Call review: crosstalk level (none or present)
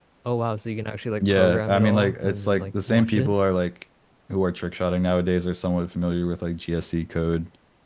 present